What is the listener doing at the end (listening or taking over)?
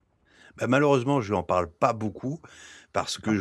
listening